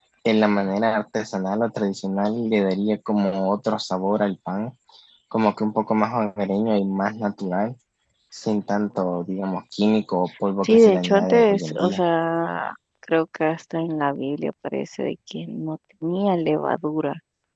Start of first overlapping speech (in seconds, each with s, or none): 10.6 s